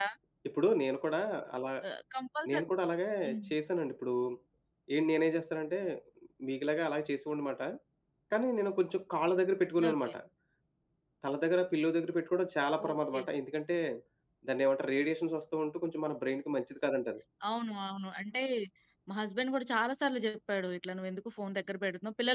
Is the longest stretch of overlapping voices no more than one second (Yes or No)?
Yes